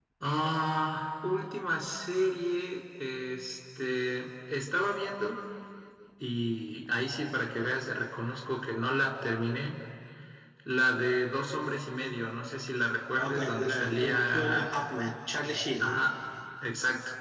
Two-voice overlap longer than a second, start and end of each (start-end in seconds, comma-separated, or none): 13.2-14.7